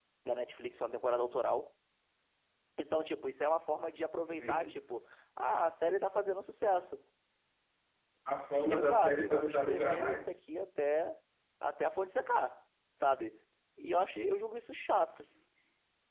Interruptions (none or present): present